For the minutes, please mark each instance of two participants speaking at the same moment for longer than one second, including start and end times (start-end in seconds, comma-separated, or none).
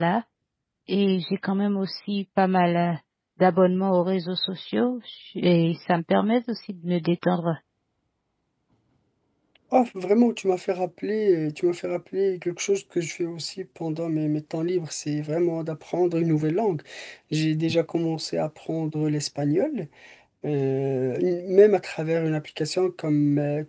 none